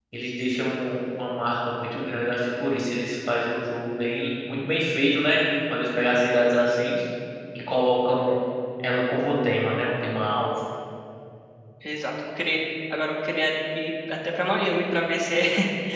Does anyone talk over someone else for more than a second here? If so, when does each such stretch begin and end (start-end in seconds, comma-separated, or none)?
none